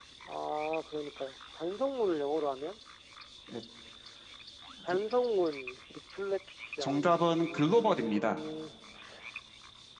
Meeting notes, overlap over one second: present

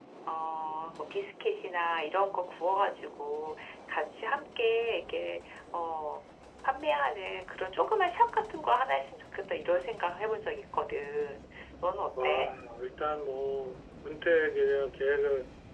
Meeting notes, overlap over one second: none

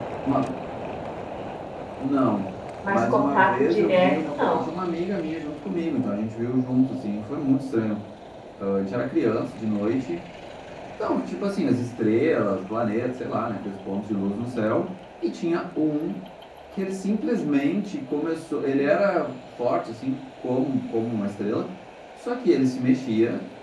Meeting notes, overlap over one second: present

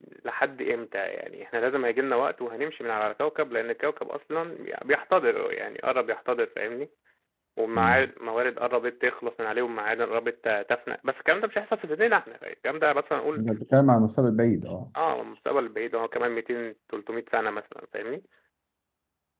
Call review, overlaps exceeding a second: none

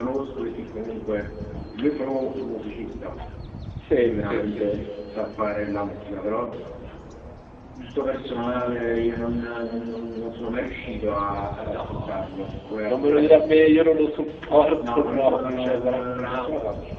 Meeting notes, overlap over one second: present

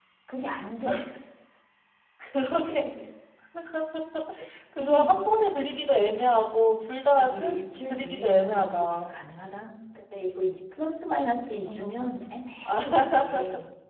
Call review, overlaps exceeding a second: present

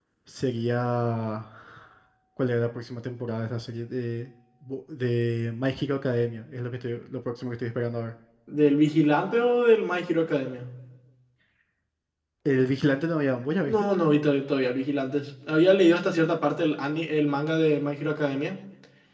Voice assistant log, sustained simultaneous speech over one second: none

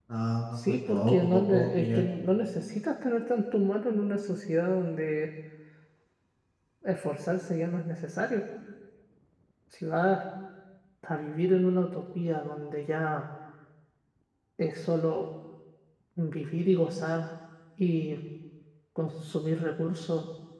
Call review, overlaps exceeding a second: present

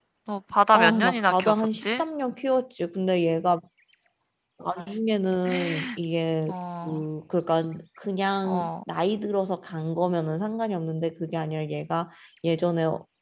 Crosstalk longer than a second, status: present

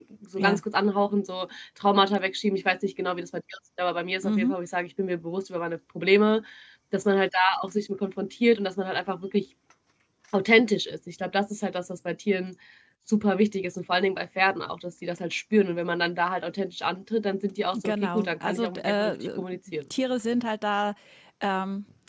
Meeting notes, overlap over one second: present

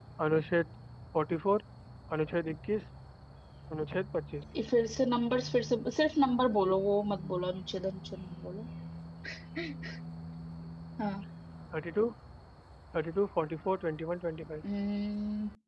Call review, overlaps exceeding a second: none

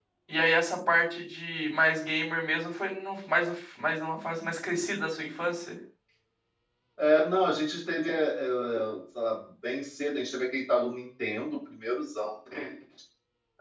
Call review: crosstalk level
none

